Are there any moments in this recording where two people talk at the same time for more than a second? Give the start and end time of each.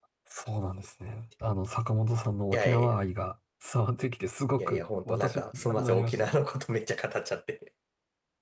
4.6-6.3

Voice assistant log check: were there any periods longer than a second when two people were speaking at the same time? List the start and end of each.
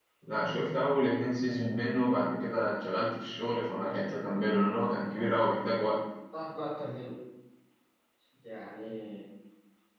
none

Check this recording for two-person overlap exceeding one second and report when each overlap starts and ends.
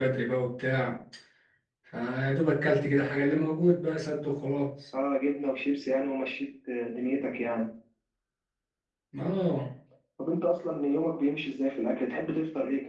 none

